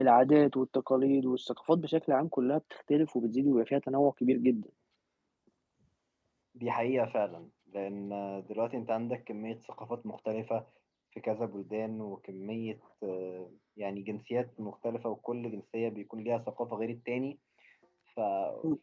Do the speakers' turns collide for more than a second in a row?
No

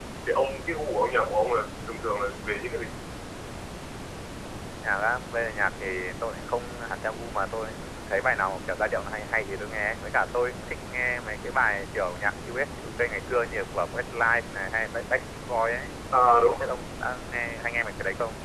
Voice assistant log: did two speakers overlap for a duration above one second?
No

